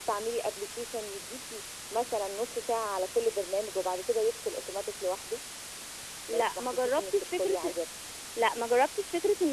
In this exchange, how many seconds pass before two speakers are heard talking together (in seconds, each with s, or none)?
6.3 s